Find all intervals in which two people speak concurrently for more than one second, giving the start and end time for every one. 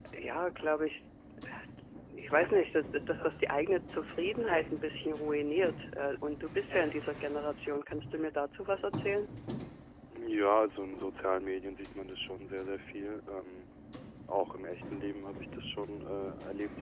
none

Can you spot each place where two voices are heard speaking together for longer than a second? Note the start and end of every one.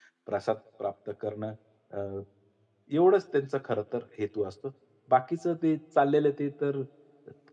none

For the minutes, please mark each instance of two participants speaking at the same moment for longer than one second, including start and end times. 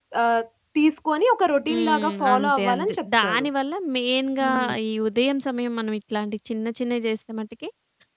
1.7-3.5

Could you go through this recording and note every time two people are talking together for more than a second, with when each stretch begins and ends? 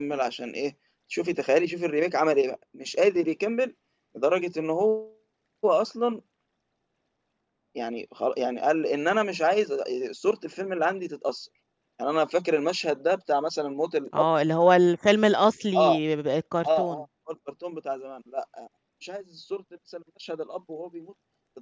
none

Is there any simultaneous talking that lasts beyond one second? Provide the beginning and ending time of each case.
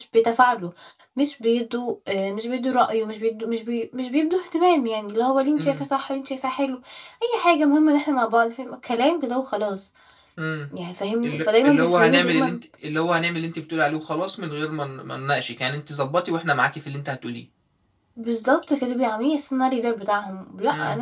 11.2-12.6

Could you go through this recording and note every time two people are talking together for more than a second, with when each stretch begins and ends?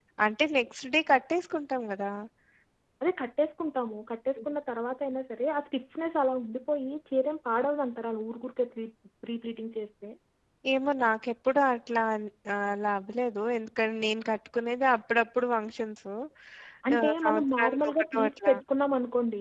17.0-18.5

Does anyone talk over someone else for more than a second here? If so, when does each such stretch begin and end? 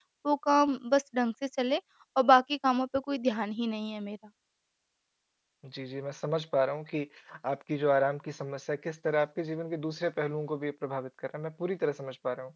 none

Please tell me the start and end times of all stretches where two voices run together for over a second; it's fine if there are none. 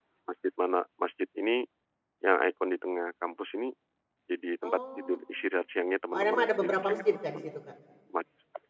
6.1-7.4

